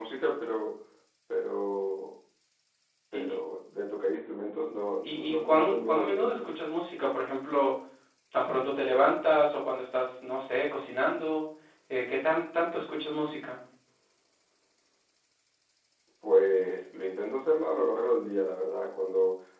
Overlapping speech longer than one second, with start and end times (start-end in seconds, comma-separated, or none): 5.0-6.5